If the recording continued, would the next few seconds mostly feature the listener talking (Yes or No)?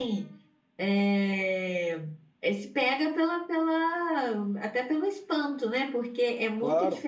No